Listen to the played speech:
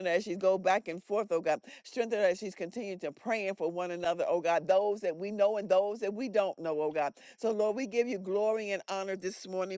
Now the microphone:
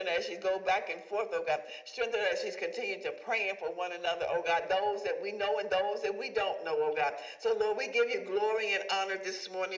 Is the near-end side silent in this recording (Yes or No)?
Yes